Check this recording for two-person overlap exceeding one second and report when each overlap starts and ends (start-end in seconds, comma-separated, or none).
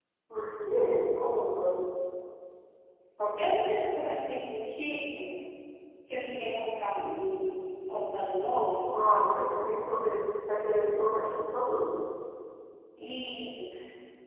none